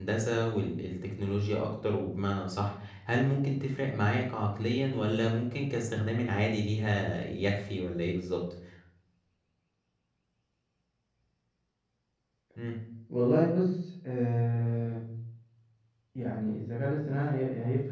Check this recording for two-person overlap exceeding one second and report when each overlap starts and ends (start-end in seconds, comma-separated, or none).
none